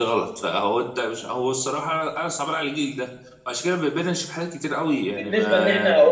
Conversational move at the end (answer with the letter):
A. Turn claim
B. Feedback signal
A